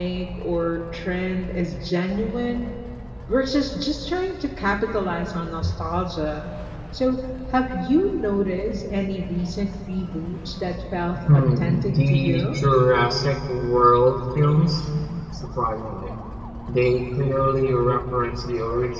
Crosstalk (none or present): present